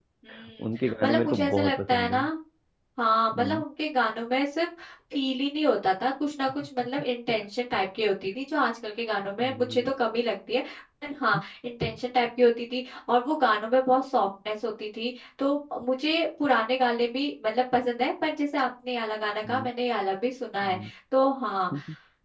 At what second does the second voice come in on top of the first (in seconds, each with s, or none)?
0.7 s